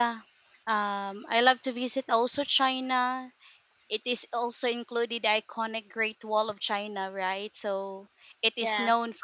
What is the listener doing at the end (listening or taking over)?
listening